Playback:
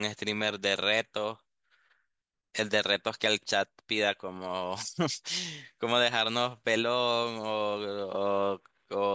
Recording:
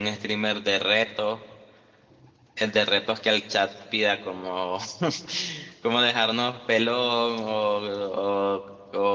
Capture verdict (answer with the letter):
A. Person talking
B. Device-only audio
B